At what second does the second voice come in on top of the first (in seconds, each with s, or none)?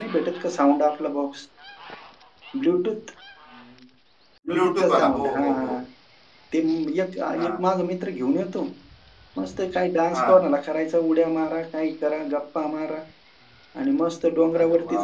4.5 s